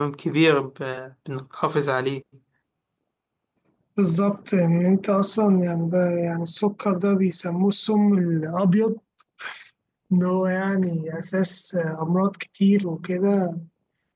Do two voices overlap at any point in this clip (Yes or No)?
No